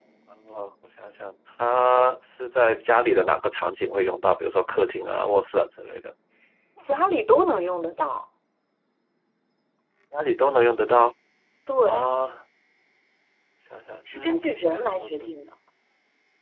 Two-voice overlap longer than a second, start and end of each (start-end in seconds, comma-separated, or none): 14.1-15.3